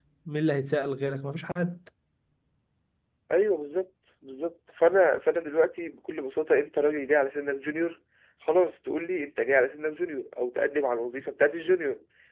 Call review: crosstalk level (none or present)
none